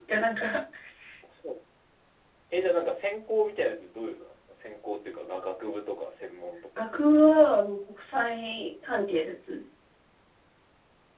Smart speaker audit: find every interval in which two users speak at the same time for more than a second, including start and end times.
none

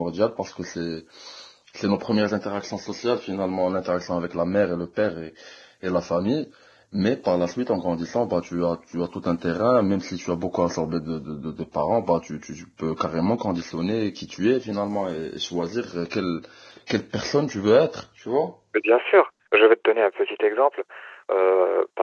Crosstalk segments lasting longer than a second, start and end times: none

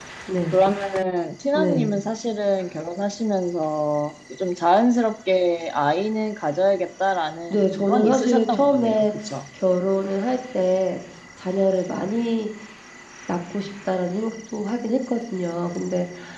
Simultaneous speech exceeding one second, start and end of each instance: 7.5-9.1

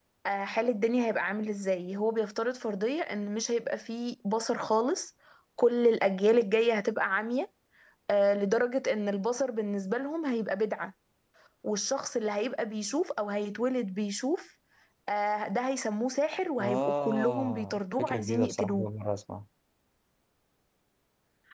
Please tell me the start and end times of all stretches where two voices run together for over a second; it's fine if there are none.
16.6-18.9

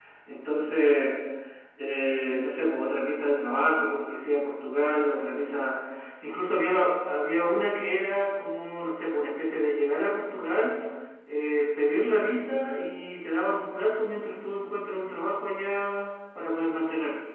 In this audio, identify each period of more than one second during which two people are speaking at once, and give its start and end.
none

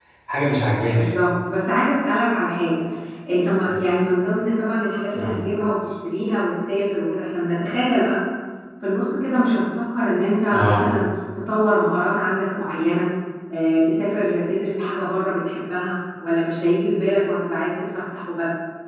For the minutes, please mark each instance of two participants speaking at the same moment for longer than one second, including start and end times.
none

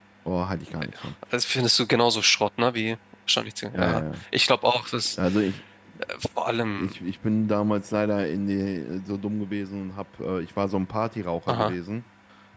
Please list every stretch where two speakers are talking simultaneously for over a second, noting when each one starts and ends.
none

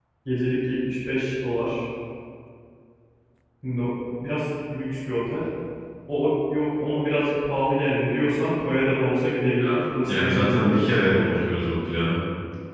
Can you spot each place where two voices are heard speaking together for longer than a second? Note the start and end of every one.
10.1-11.4

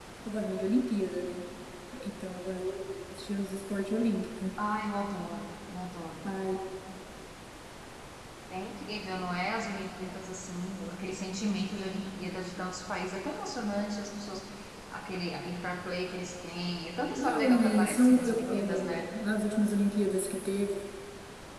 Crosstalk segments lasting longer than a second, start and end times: 17.1-19.1

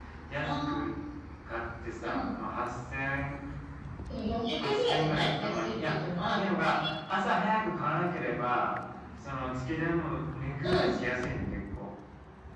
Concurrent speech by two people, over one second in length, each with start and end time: 4.6-5.9

